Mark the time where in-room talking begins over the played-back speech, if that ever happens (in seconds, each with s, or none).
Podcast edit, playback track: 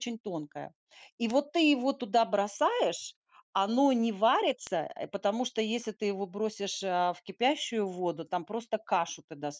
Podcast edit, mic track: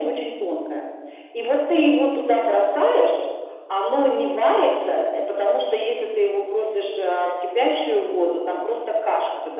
none